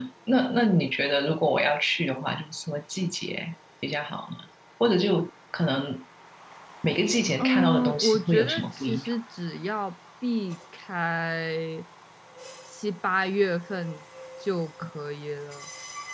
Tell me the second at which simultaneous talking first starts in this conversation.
7 s

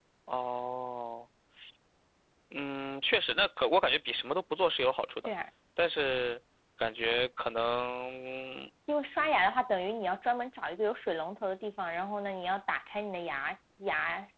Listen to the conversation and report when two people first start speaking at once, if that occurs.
none

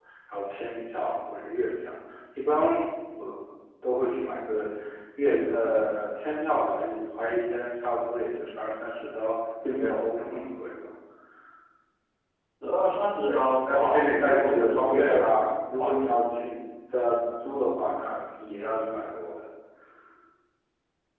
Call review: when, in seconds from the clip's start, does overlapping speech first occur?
13 s

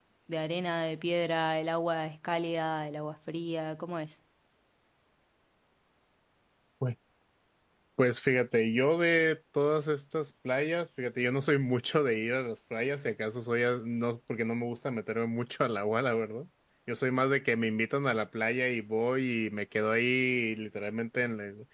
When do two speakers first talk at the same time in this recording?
none

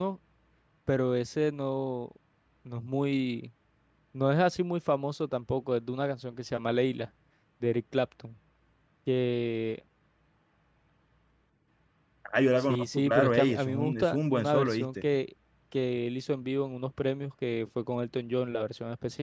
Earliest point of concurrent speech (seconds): 13 s

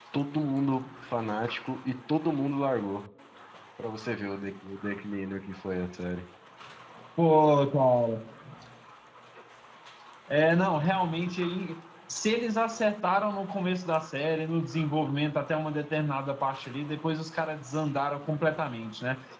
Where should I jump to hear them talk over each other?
none

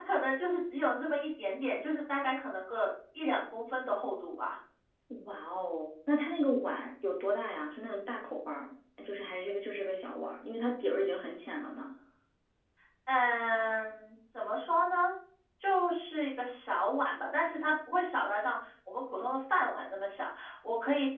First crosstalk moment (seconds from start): none

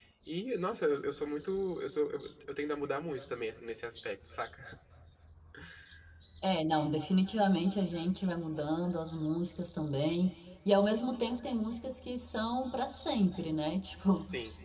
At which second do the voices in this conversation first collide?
none

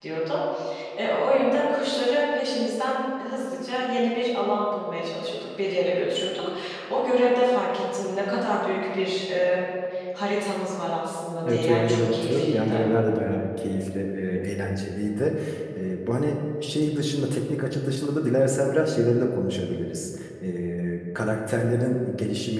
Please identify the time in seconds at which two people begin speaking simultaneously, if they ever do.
11 s

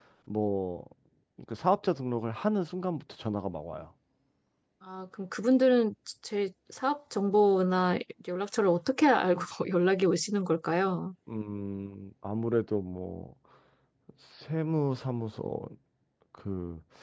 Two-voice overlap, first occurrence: none

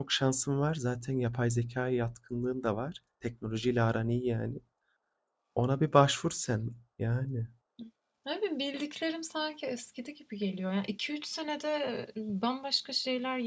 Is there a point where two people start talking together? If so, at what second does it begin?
none

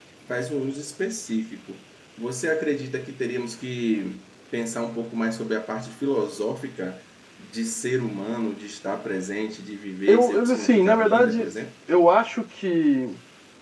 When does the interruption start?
10 s

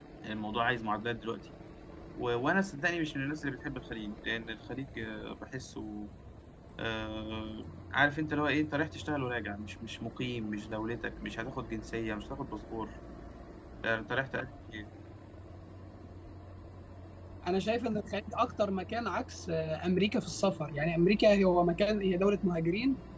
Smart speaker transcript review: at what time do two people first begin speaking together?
none

